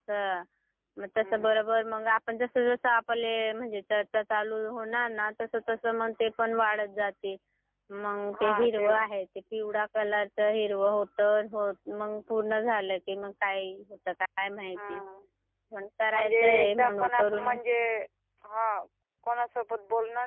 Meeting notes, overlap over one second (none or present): present